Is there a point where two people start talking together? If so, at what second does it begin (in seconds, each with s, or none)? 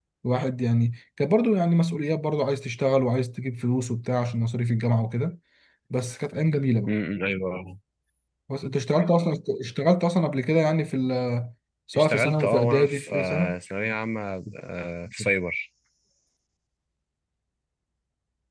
11.9 s